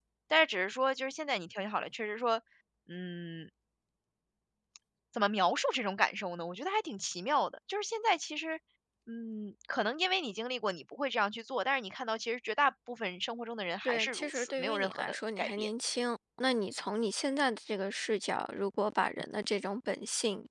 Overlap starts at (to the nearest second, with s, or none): 14 s